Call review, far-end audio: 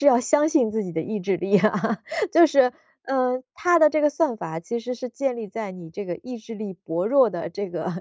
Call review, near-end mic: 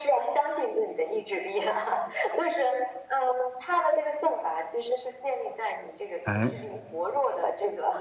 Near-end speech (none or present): present